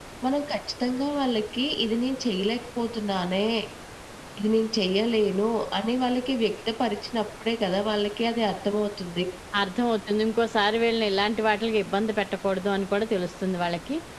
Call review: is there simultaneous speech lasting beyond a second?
No

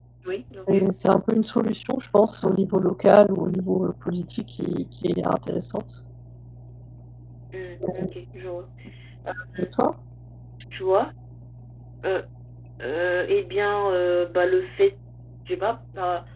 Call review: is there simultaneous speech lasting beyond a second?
No

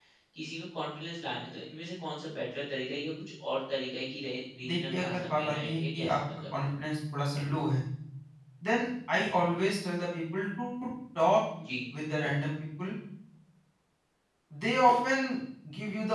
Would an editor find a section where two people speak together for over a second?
Yes, from 4.6 s

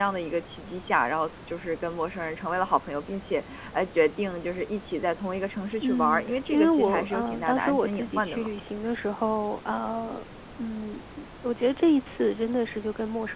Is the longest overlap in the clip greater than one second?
Yes, from 5.8 s

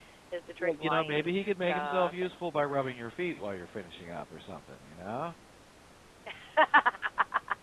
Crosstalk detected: Yes, from 0.6 s

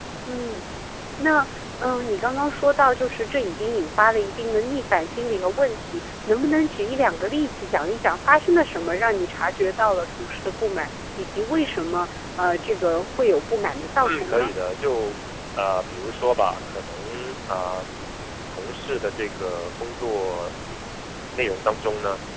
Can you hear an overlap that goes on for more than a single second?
No

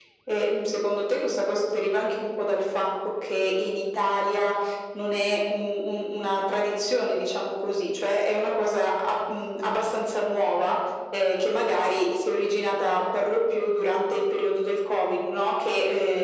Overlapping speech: No

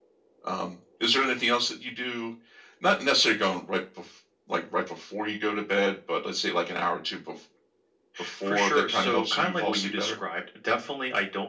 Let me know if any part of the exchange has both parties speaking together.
Yes, from 8.4 s

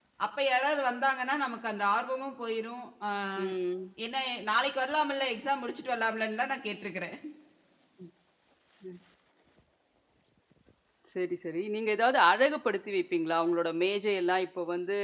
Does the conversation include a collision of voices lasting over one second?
No

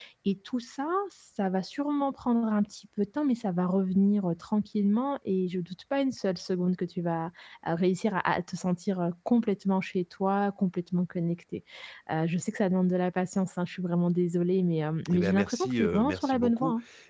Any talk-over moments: Yes, from 15.1 s

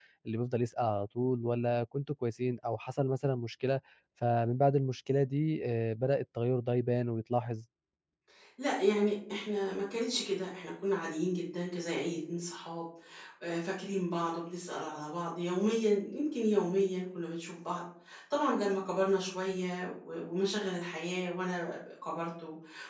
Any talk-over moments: No

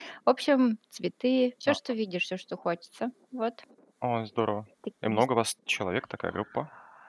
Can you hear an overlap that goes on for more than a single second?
No

